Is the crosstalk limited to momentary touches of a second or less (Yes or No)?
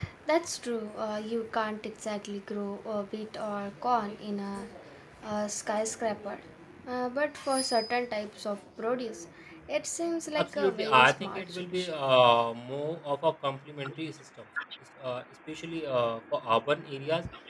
No